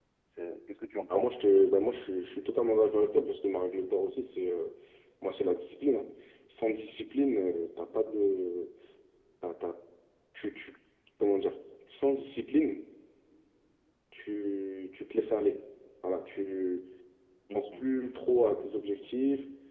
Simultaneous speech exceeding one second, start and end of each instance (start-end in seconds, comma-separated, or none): none